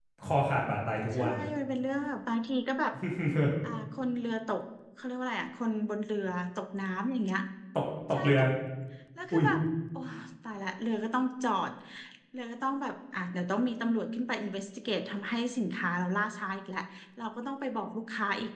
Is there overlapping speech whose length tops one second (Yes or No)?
No